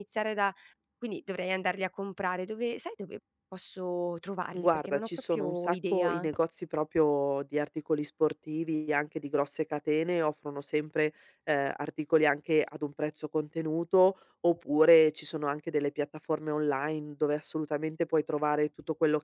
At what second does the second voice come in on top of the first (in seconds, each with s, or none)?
4.5 s